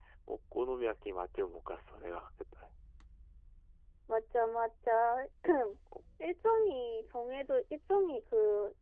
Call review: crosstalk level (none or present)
none